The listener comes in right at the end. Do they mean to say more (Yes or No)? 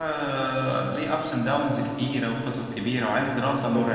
No